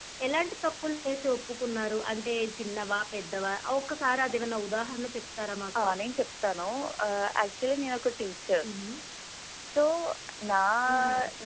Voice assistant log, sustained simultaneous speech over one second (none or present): none